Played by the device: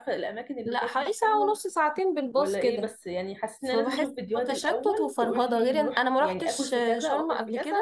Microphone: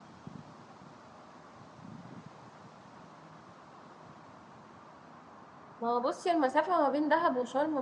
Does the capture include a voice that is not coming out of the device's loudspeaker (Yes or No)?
Yes